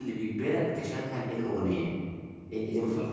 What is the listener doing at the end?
listening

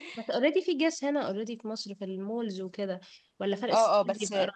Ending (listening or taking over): taking over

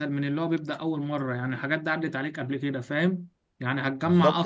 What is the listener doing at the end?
listening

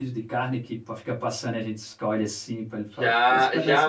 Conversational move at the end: taking over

